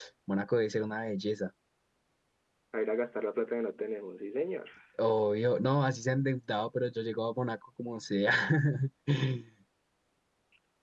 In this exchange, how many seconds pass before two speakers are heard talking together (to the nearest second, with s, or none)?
none